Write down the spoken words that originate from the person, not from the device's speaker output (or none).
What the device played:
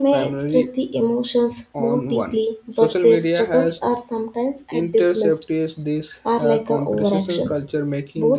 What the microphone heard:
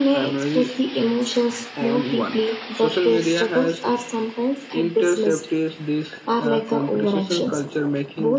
none